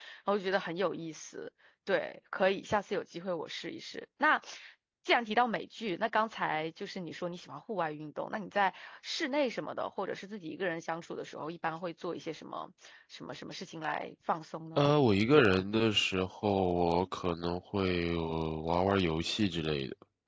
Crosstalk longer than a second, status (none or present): none